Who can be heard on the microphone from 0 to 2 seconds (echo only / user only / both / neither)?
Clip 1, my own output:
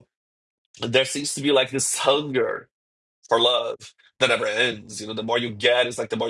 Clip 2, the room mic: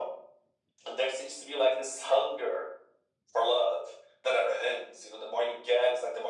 echo only